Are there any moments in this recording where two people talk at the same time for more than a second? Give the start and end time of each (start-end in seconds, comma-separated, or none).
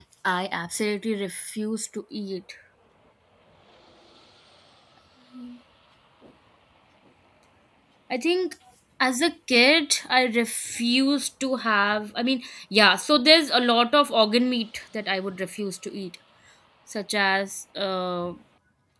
none